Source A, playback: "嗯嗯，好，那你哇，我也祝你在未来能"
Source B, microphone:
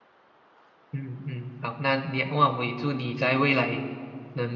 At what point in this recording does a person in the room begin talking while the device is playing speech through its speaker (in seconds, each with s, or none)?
none